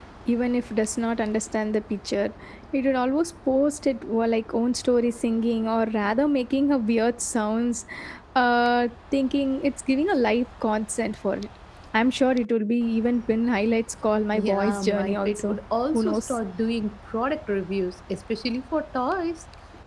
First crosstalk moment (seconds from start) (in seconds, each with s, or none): 14.3 s